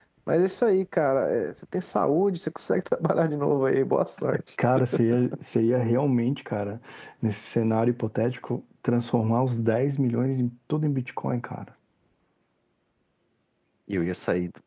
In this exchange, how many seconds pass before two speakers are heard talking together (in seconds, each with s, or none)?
none